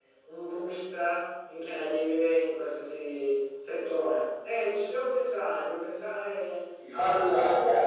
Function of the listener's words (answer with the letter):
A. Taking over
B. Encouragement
A